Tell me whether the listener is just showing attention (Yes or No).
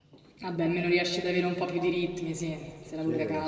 No